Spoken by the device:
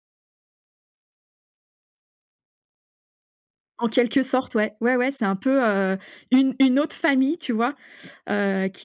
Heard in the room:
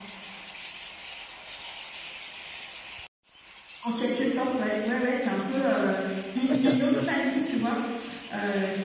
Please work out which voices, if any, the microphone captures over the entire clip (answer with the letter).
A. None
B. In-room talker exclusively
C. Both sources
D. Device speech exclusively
C